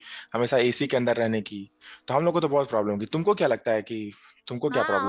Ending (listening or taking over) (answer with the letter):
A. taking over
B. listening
A